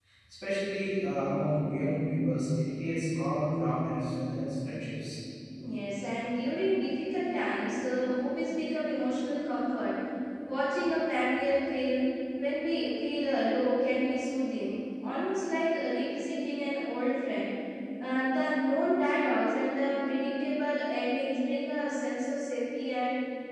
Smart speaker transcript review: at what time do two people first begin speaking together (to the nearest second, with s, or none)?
none